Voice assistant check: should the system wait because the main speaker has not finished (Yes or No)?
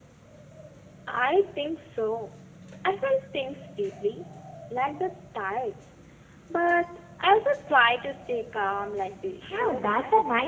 No